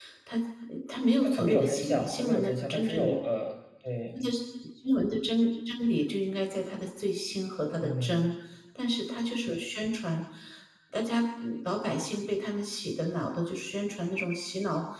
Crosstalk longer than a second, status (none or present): present